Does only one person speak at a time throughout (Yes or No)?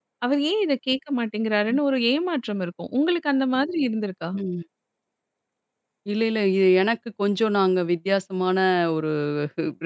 Yes